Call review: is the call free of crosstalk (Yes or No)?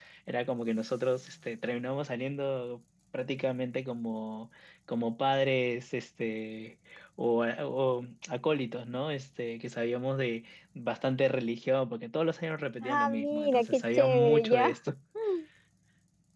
No